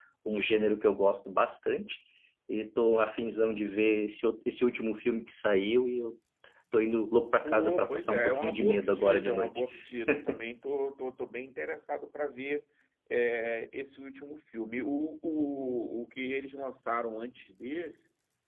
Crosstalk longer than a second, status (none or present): present